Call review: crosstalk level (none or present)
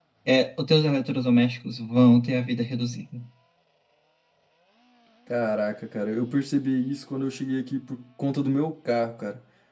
none